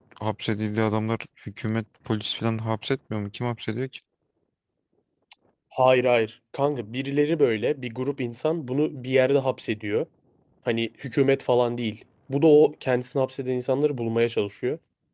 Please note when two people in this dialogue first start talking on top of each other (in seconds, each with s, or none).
none